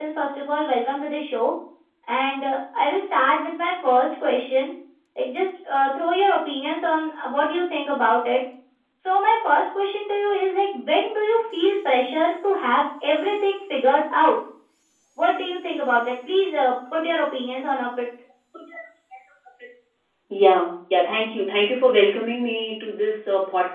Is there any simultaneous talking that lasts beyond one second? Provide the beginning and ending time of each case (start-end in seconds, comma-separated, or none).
none